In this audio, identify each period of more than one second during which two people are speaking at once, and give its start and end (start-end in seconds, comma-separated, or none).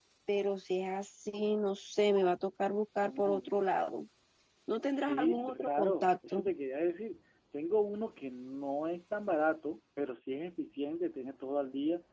5.0-6.5